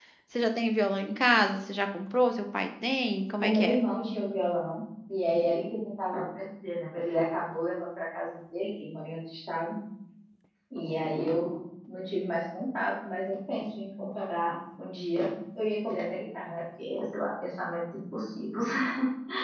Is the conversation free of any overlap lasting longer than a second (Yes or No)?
Yes